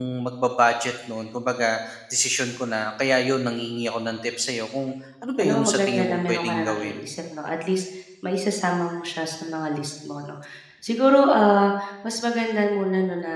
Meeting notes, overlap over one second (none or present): present